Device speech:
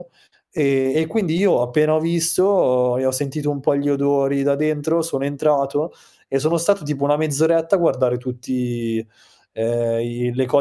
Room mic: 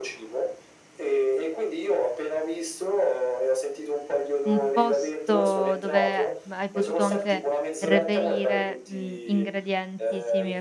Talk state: both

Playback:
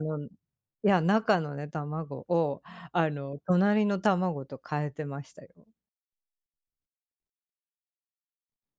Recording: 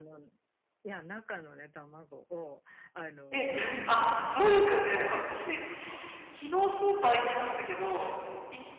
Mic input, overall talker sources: both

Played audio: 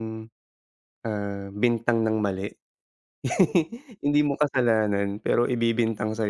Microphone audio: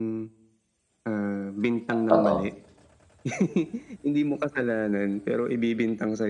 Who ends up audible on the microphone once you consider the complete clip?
both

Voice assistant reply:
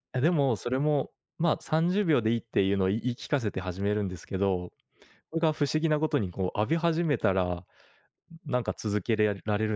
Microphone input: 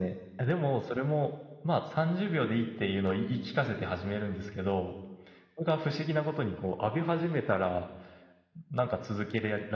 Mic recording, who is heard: echo only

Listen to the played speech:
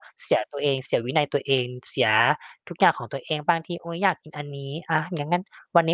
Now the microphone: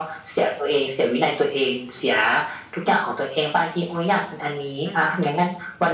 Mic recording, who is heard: both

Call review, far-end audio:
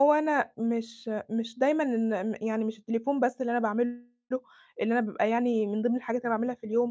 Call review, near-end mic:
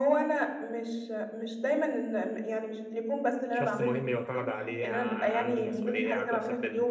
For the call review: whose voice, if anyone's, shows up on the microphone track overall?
both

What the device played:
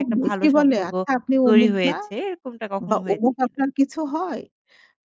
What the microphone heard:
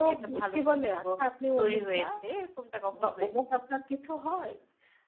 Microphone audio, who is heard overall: echo only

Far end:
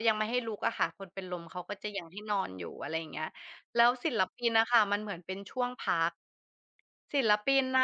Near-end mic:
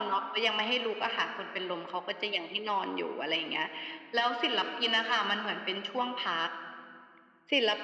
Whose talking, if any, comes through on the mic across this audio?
echo only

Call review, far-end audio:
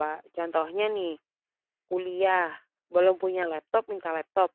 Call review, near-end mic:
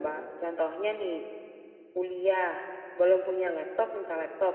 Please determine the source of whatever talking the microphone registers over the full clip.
echo only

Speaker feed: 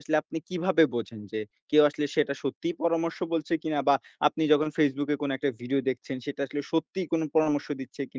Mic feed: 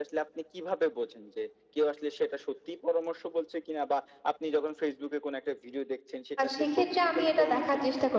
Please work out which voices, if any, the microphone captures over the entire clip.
both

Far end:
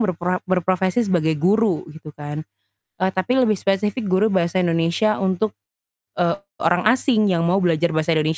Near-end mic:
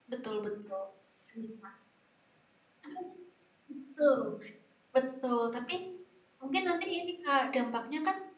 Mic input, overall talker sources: user only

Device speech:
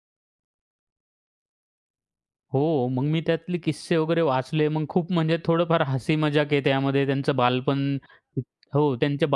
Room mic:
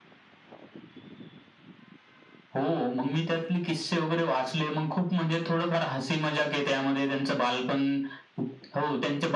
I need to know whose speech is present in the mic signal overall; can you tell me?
echo only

